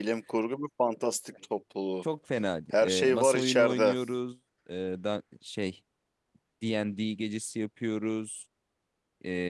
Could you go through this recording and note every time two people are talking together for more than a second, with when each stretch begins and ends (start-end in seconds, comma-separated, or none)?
2.7-3.9